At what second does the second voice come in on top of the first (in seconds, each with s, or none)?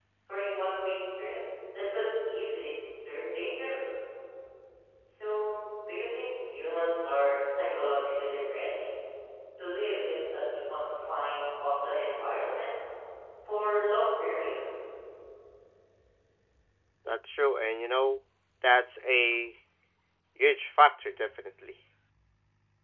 none